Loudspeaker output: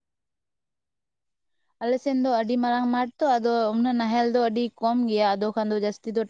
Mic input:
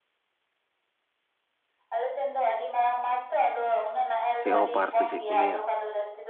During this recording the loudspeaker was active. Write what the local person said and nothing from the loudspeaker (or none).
ᱪᱮᱜ ᱦᱚᱸᱯᱟᱨ ᱥᱮ ᱪᱮᱜ ᱠᱚ ᱞᱟᱹᱭᱟ᱾